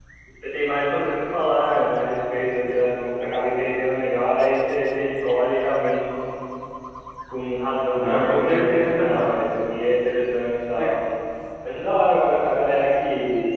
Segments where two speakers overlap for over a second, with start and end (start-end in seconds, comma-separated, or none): 7.9-9.4